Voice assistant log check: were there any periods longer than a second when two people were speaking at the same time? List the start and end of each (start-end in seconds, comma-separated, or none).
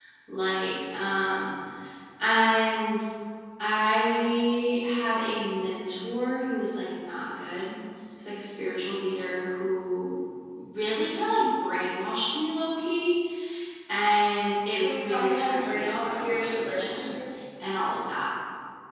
14.7-17.1